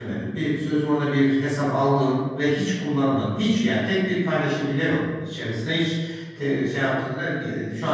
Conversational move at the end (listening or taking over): listening